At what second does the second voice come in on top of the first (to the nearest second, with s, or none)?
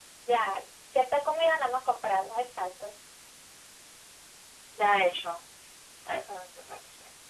none